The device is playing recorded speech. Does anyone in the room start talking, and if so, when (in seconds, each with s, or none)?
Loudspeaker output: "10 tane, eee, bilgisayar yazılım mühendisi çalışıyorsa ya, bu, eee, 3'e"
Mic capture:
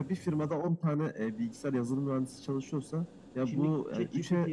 3.4 s